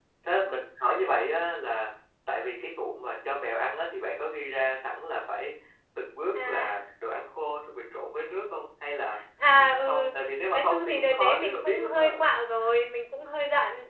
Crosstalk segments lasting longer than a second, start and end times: 10.5-12.0

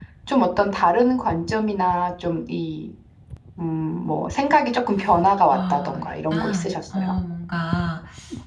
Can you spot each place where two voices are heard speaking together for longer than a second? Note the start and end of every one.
5.5-7.1

